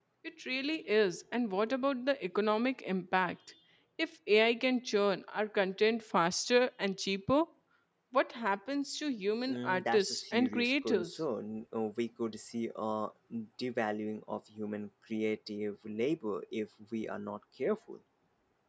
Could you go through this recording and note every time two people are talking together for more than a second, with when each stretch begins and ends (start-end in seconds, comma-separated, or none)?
9.5-11.2